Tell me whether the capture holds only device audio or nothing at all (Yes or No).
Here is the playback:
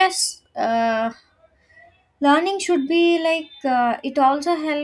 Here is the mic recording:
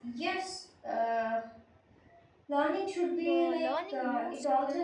No